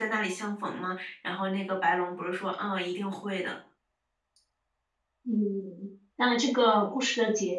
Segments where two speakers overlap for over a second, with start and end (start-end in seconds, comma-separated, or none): none